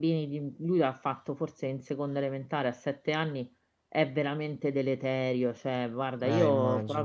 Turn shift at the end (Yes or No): No